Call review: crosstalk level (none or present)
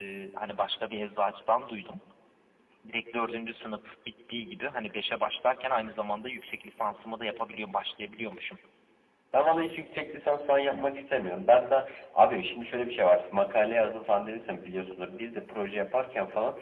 none